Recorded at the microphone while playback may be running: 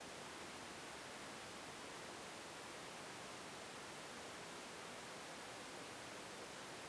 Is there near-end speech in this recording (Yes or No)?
No